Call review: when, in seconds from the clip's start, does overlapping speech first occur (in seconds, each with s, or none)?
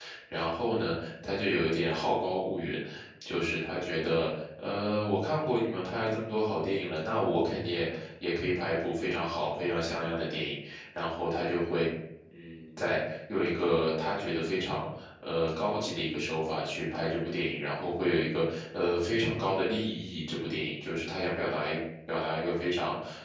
none